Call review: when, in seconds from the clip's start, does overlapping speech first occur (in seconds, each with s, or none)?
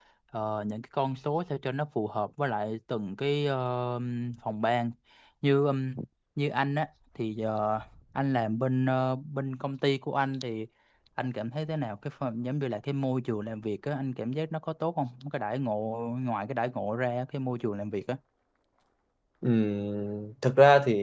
none